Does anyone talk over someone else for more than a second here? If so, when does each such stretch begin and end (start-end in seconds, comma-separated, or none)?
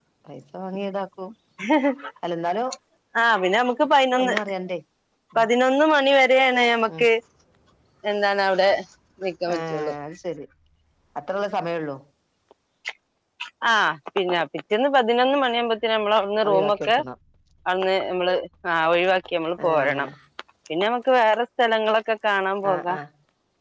none